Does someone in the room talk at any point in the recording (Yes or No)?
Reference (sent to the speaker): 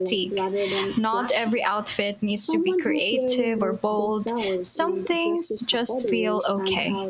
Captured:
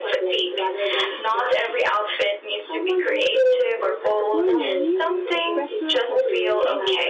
Yes